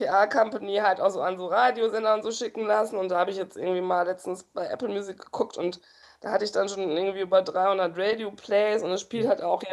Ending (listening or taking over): listening